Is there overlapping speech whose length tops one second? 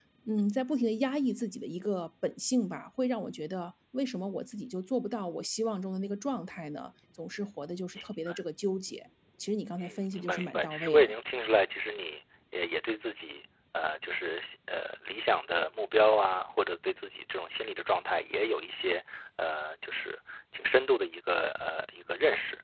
Yes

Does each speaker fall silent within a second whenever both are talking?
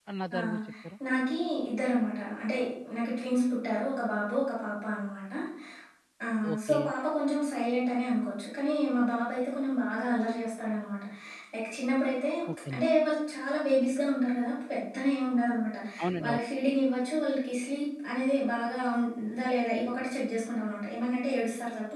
Yes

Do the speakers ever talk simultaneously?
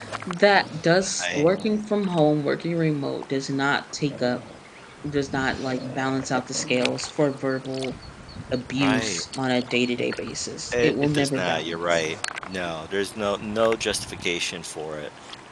Yes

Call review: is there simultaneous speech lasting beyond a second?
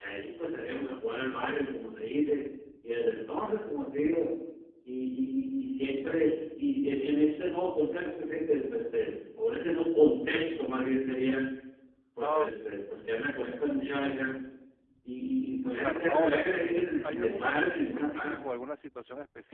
Yes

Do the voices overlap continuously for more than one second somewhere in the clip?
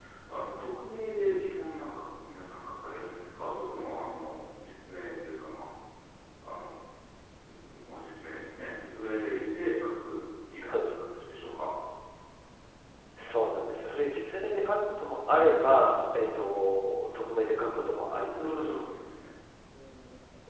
No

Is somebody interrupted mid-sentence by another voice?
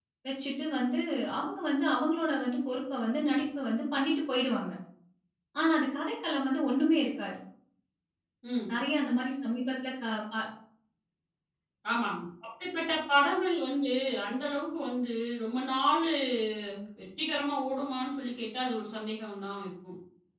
No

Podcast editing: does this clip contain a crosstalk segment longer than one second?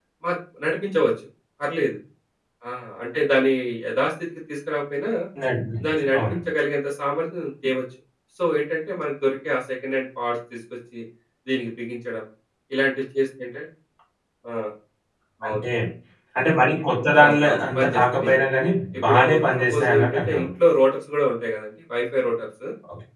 Yes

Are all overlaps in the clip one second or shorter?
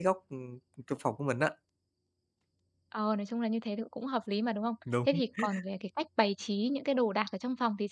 Yes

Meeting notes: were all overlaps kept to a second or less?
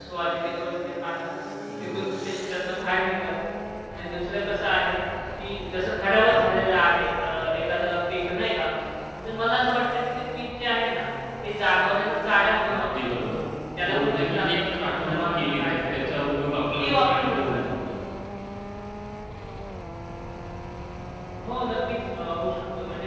No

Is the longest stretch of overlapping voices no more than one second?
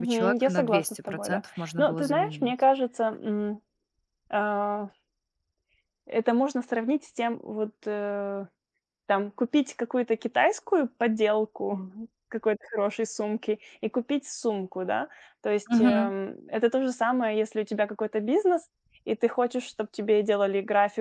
No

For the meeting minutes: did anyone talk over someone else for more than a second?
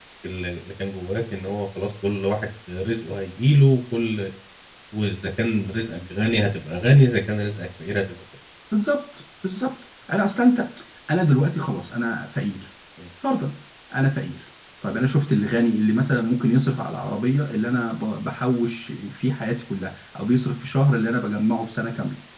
No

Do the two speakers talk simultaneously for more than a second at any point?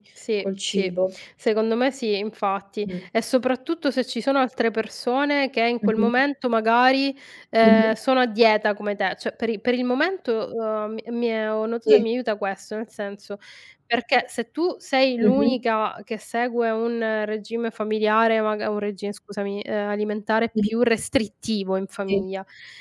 No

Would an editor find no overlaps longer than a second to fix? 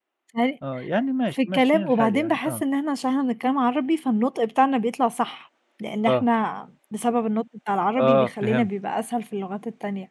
No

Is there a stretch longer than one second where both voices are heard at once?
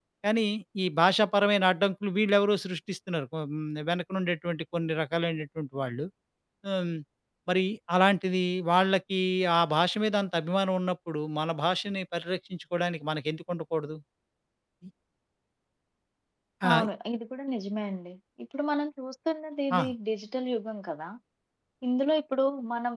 No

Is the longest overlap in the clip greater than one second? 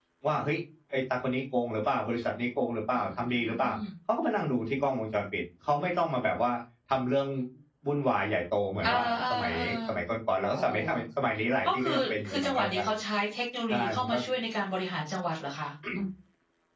Yes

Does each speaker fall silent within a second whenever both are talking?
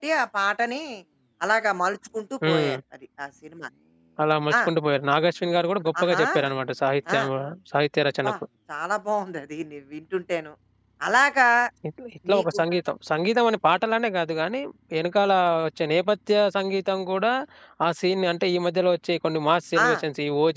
Yes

